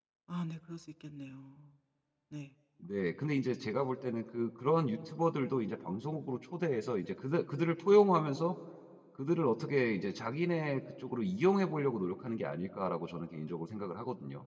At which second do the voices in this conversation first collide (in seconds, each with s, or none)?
none